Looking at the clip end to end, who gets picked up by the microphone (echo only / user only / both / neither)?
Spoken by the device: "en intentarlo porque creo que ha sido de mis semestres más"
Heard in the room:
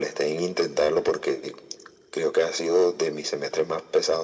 echo only